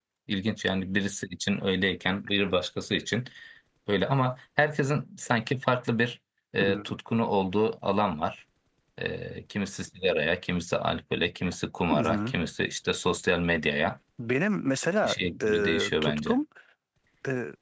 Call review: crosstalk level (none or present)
present